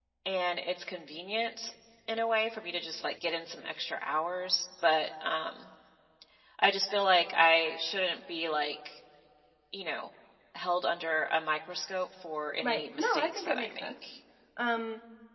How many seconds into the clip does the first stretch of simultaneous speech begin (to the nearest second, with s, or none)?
13 s